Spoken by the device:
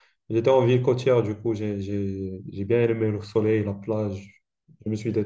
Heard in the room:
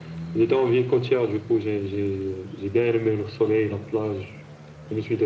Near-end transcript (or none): none